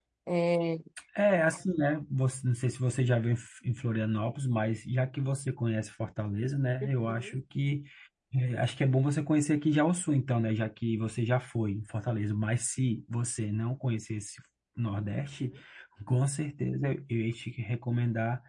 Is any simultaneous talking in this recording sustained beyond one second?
No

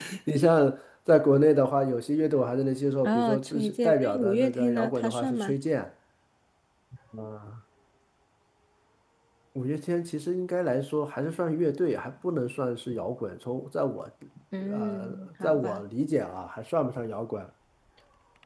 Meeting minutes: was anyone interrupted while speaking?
Yes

